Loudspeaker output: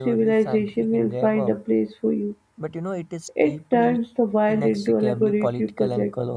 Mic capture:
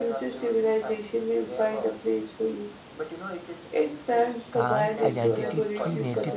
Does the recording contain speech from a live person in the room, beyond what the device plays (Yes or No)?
Yes